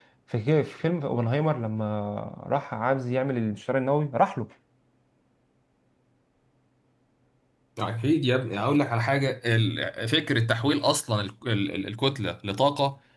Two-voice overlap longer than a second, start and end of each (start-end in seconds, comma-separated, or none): none